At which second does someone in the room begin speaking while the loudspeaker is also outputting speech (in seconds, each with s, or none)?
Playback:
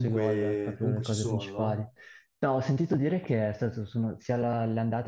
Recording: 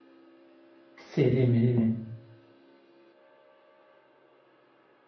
1.0 s